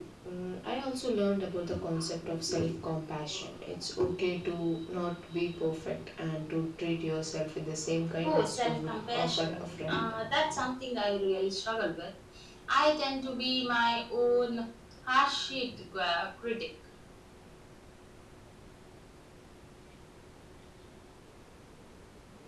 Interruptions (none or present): present